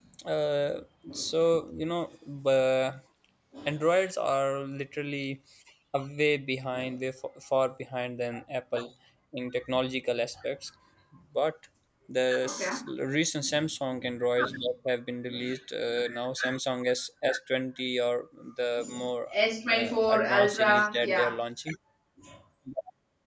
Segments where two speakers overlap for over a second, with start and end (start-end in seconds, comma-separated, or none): 19.7-21.4